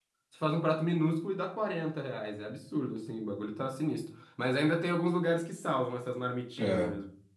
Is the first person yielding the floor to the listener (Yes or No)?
Yes